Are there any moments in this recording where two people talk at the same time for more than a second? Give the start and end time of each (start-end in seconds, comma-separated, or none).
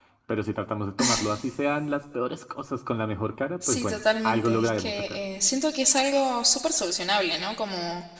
3.7-5.2